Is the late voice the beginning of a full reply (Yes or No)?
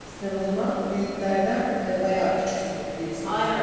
Yes